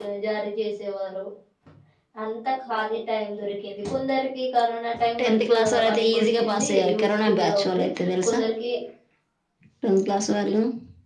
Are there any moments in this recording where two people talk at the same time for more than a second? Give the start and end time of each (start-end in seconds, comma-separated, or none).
5.2-7.7